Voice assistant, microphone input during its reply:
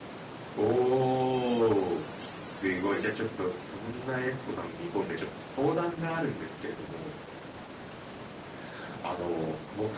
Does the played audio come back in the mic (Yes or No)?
No